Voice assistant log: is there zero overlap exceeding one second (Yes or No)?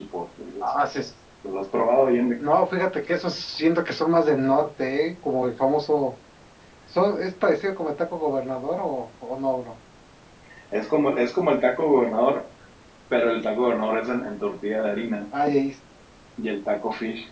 Yes